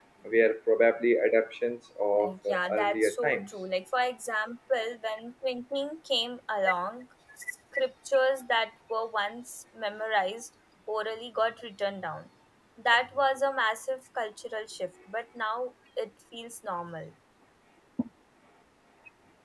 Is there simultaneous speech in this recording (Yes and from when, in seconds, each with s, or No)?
Yes, from 2.2 s